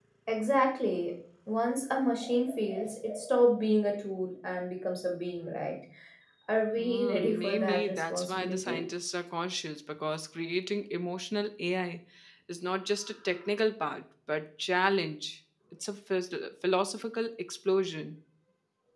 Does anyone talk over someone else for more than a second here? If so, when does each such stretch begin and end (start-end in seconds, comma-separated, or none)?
6.8-8.8